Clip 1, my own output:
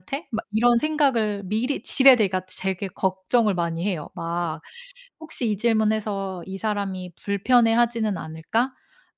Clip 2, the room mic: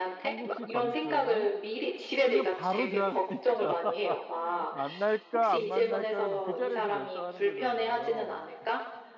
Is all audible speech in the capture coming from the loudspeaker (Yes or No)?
No